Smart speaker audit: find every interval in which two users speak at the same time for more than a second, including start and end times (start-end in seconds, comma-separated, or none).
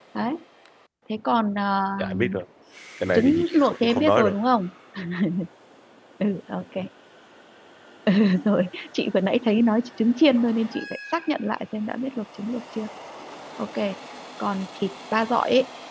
3.1-4.4